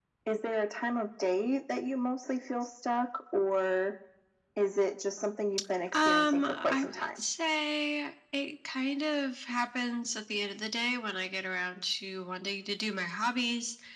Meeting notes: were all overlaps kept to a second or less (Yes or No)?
No